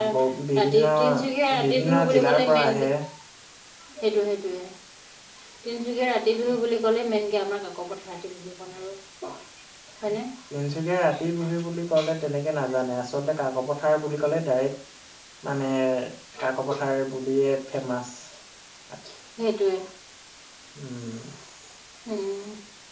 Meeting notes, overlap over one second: present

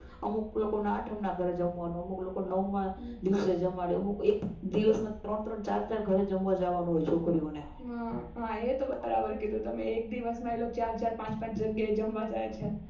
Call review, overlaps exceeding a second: none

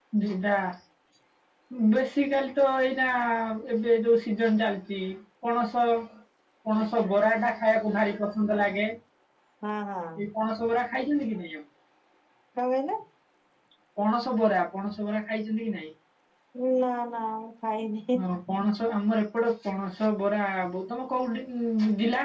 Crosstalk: none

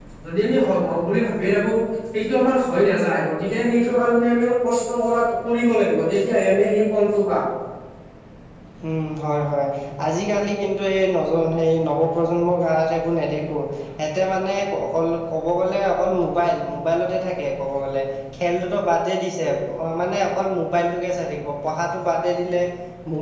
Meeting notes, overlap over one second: none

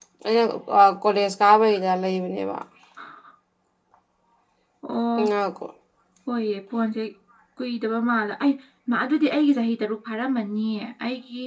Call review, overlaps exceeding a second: none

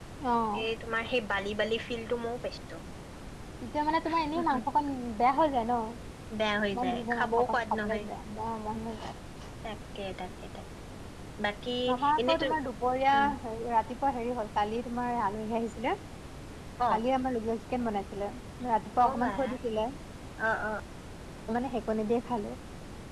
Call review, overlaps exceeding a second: present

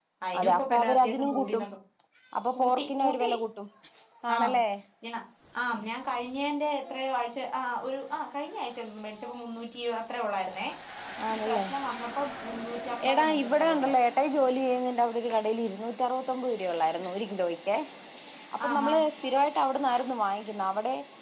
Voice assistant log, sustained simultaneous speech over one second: present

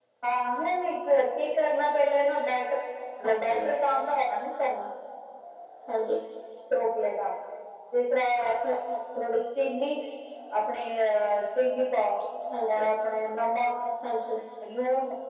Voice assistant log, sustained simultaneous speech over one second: none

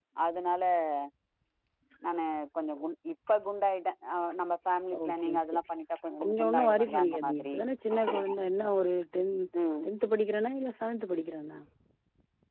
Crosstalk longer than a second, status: present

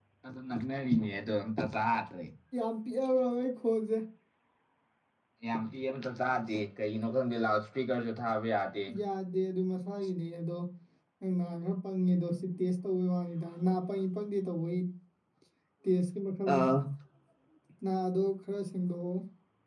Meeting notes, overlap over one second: none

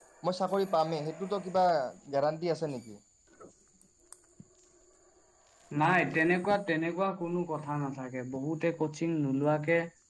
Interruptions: none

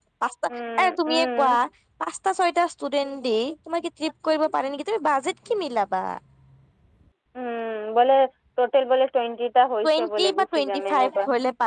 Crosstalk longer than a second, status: present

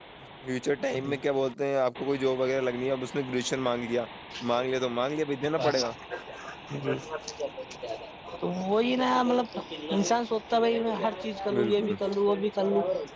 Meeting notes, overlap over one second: none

